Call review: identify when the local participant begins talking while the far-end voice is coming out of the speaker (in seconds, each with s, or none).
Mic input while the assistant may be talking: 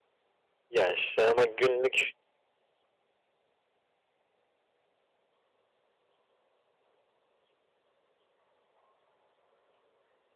0.7 s